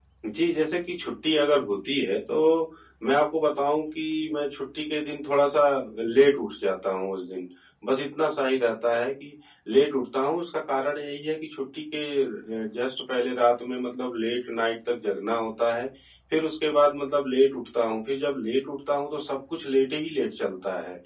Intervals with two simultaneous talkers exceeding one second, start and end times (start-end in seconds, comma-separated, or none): none